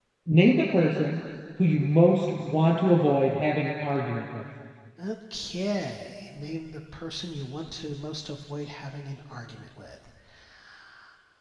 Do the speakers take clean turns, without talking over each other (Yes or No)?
Yes